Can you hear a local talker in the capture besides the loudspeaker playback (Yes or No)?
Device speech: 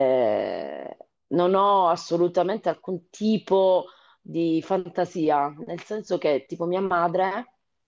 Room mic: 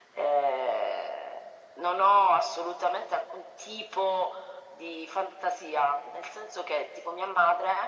No